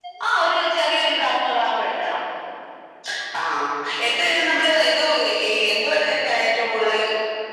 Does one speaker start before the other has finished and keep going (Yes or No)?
No